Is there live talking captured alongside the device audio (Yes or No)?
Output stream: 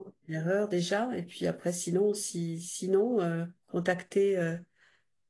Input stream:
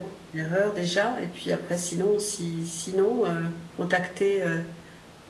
No